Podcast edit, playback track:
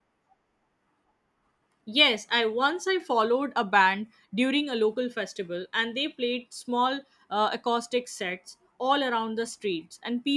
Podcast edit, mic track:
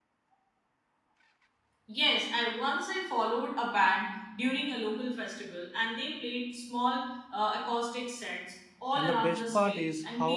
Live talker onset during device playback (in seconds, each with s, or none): 9.0 s